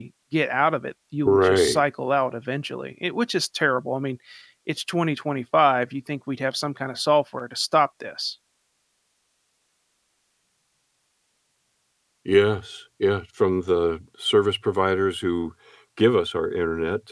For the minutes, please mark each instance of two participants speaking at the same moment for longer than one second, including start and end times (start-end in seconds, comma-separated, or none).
none